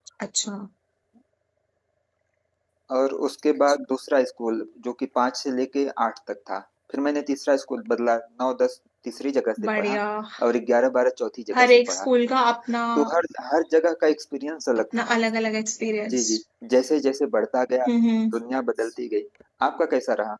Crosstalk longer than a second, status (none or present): none